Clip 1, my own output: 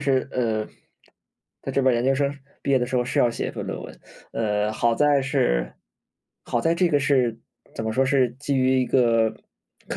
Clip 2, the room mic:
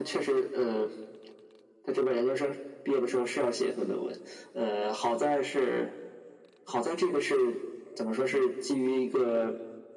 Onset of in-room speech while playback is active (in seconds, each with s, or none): none